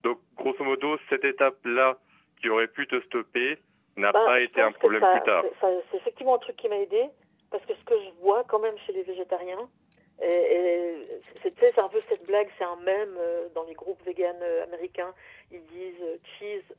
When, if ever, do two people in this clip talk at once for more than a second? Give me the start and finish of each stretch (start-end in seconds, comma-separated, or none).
4.1-5.5